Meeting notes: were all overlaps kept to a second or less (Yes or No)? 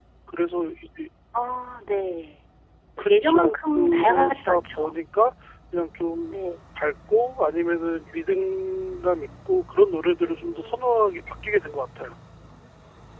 No